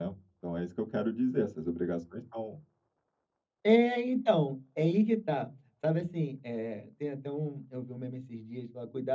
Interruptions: none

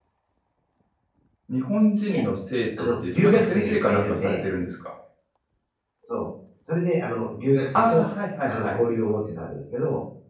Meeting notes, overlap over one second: present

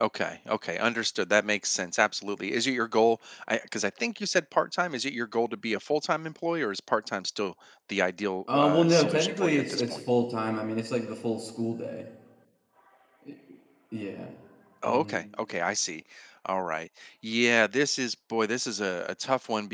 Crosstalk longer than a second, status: present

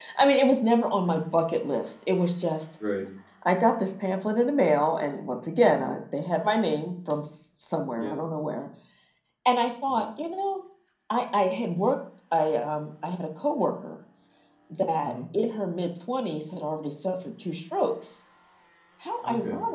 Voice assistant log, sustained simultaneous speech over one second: none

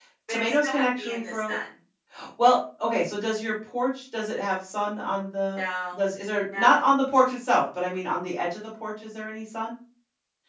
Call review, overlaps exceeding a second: present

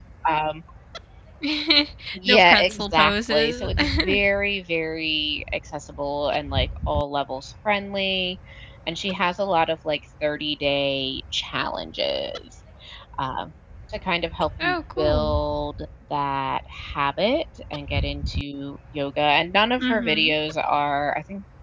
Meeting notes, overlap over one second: present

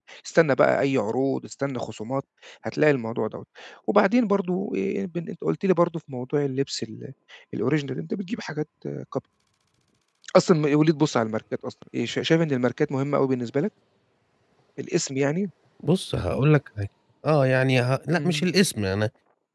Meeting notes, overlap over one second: none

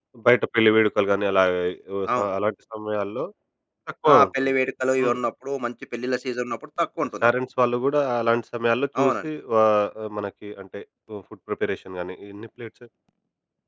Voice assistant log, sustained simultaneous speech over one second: none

